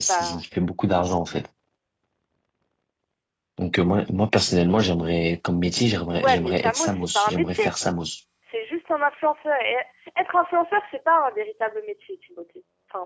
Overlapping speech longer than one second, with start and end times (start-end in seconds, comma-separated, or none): 6.1-7.6